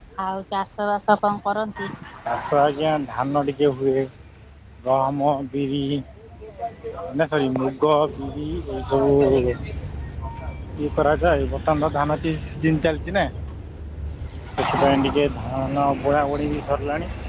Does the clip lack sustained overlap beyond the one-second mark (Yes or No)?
Yes